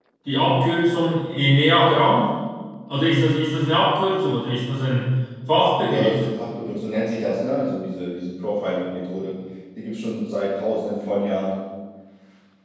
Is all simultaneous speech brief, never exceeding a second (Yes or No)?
Yes